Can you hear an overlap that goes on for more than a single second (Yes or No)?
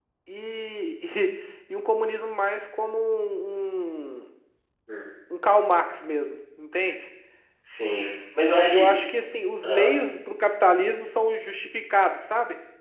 No